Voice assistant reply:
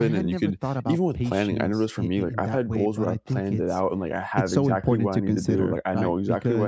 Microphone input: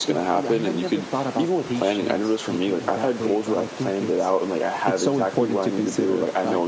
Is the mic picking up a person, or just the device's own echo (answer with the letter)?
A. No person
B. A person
A